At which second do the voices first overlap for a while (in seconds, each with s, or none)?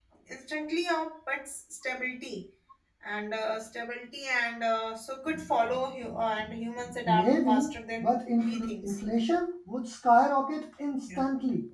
7.0 s